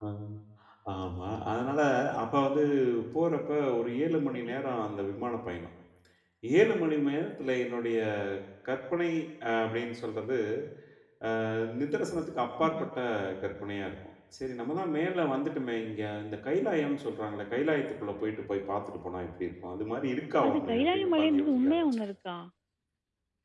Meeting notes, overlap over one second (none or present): present